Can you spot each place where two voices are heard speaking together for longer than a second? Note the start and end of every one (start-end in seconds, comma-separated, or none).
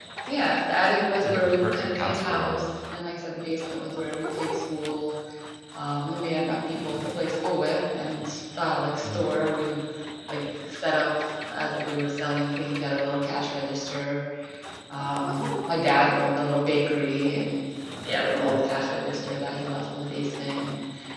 1.1-2.6